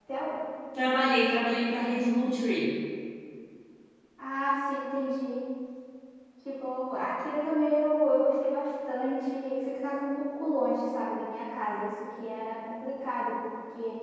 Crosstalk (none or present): none